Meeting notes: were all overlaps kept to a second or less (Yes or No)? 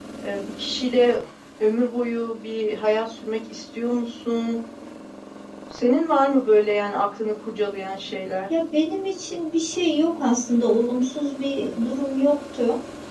Yes